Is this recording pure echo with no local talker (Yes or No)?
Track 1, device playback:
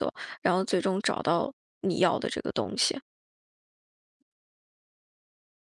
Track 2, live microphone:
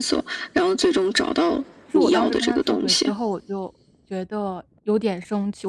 No